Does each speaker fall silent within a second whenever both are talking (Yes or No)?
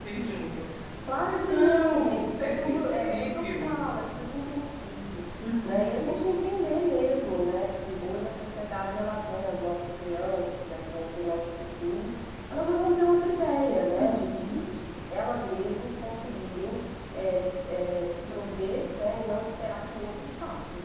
No